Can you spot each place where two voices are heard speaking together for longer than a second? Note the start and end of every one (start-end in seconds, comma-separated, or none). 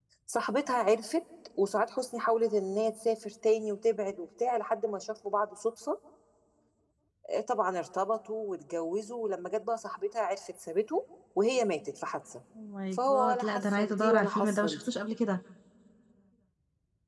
12.9-14.9